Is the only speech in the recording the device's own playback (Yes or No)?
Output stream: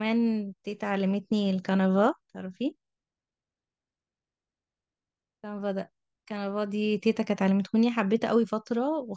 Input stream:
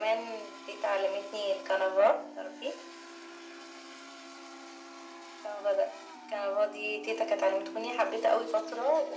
Yes